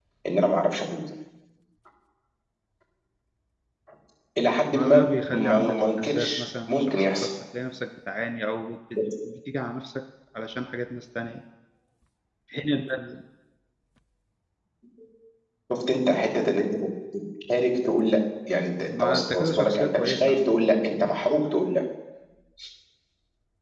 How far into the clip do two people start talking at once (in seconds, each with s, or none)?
4.7 s